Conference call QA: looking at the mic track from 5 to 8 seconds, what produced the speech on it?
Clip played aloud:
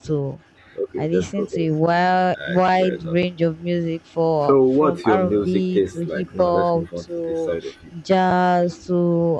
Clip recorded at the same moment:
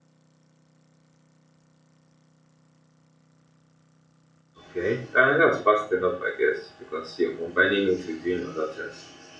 user only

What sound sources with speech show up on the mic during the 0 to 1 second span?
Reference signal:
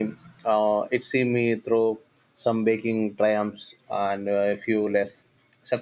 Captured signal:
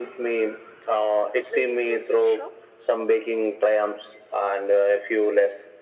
echo only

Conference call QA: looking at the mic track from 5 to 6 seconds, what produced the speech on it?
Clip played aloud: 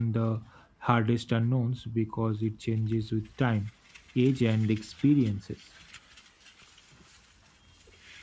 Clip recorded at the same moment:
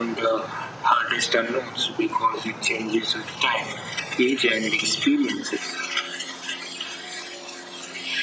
echo only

